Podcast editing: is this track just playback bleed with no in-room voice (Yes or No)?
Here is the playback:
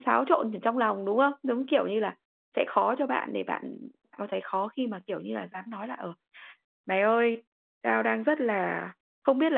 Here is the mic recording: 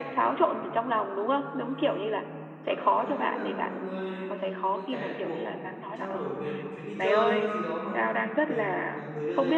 No